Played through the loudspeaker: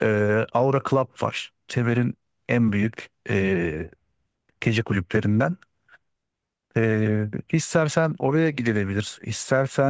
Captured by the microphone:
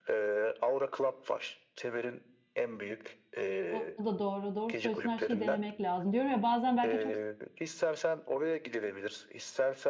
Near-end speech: present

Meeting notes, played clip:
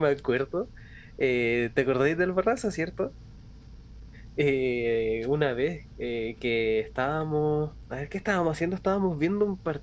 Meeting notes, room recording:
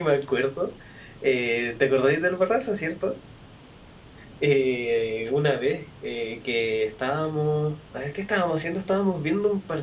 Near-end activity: none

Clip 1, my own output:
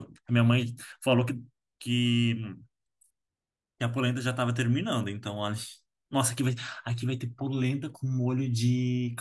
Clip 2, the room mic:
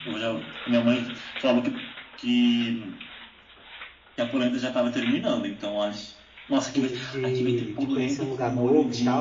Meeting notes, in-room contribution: present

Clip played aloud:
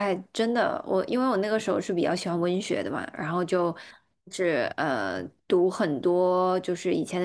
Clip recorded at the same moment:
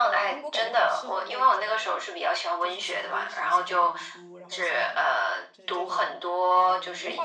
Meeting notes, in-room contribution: present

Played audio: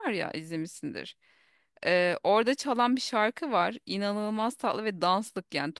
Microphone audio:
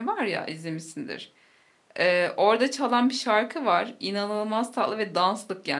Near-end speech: none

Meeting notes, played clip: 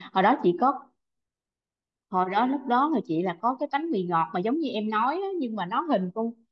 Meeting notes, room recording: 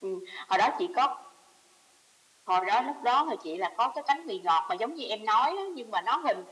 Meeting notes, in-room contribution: none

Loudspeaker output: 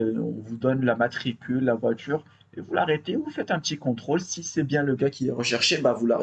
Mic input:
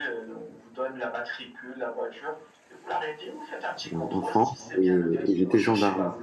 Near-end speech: present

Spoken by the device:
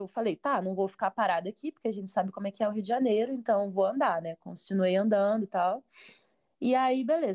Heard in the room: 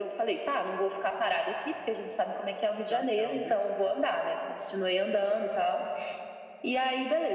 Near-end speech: present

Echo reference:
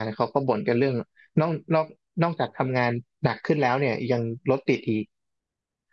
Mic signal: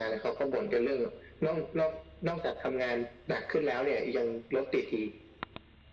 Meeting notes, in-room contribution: none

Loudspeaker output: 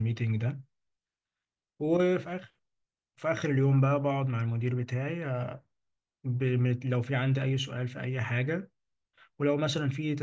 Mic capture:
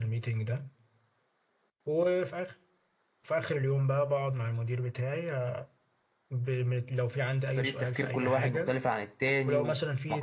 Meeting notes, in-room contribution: present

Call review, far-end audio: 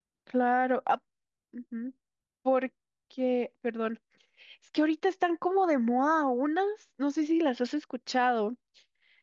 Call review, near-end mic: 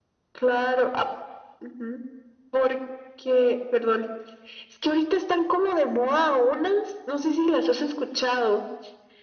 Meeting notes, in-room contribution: none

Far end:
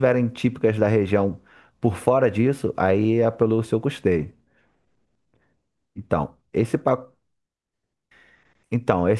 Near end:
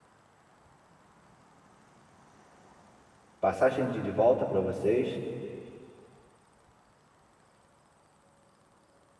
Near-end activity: present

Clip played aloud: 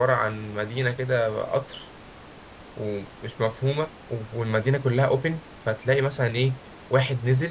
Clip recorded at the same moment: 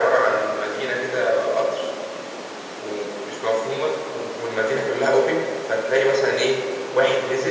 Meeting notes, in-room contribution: none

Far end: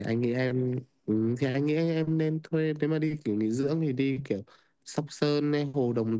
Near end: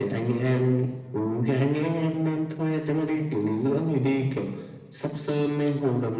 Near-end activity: none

